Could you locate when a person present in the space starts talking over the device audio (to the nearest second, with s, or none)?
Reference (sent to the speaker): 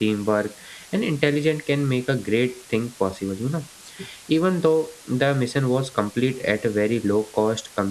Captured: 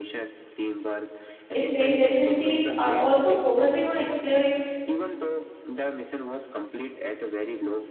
2 s